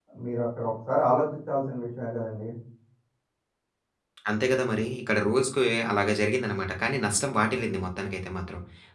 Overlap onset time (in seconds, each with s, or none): none